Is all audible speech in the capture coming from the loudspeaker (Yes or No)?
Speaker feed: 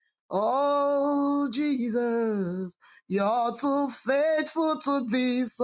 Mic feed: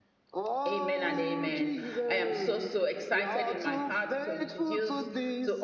No